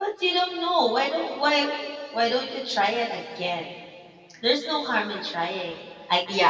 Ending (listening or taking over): taking over